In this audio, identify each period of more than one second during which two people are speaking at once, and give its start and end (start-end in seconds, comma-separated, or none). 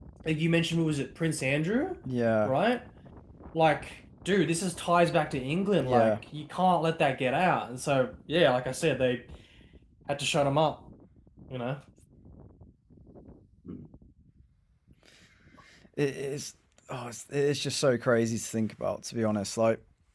none